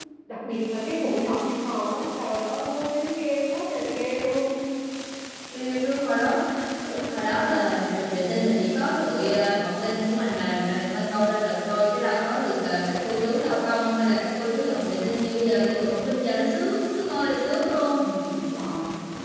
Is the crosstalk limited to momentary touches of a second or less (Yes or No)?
Yes